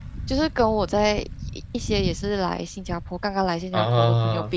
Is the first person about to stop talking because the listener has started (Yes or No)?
No